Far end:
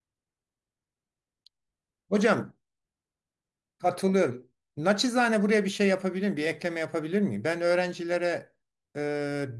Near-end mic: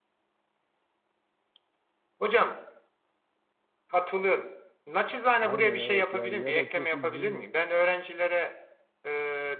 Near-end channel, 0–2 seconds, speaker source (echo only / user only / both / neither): neither